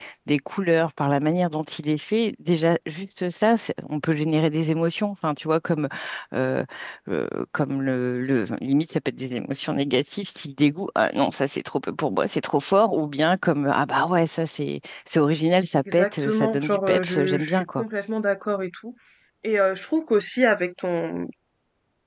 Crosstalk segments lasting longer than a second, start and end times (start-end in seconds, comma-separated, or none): 15.9-17.8